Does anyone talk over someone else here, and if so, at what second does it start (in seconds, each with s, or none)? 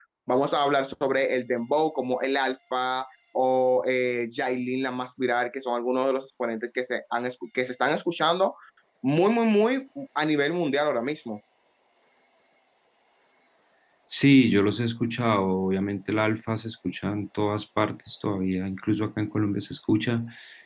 none